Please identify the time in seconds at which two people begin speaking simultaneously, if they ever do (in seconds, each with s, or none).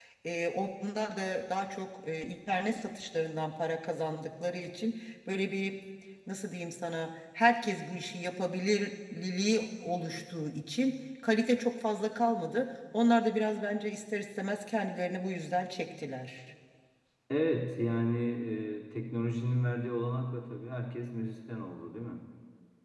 none